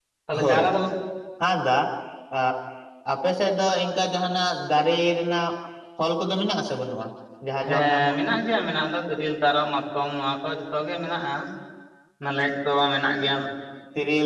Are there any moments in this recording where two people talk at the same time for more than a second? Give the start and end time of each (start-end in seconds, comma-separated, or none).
none